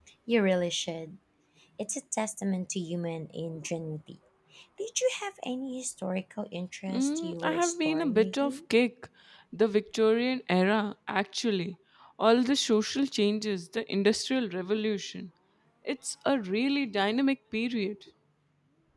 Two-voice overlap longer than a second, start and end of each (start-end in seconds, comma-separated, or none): 6.9-8.6